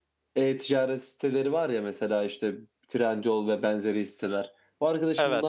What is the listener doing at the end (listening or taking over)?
listening